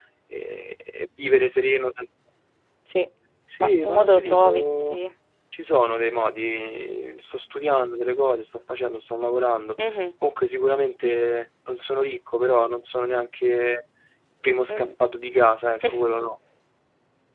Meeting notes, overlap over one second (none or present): present